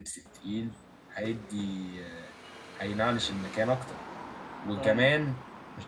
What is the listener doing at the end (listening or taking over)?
listening